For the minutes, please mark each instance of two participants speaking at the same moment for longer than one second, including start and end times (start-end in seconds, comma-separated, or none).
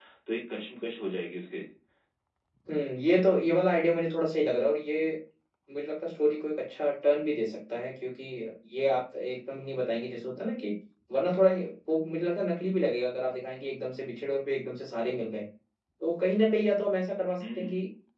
none